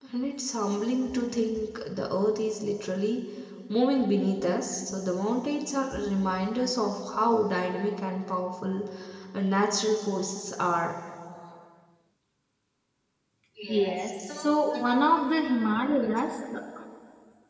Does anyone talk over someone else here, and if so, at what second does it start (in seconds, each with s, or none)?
13.6 s